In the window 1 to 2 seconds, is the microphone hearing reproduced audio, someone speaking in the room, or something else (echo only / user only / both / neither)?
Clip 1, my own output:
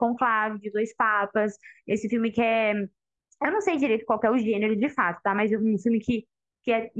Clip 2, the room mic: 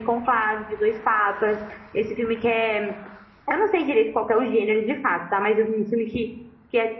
echo only